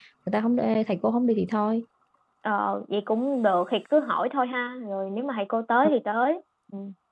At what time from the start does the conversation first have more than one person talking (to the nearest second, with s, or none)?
none